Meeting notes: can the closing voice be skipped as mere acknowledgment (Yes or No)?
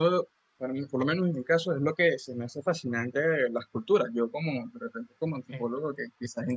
Yes